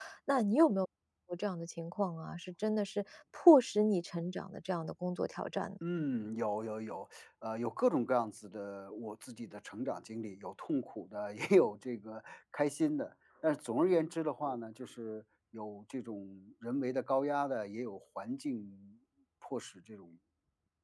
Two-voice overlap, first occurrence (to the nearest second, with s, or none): none